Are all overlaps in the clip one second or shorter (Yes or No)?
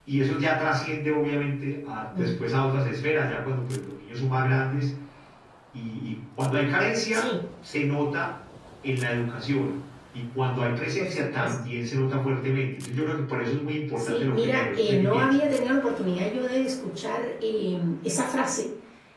No